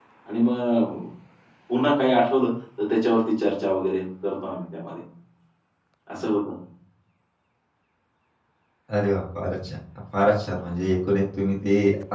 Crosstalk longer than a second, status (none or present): none